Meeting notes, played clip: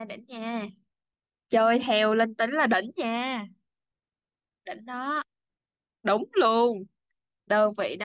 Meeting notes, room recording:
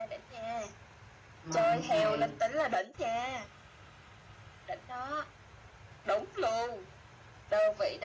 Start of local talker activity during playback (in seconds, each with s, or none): 1.4 s